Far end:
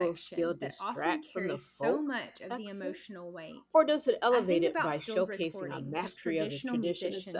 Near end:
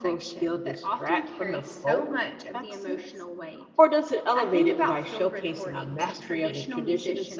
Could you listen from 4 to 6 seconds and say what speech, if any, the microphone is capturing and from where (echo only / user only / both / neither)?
echo only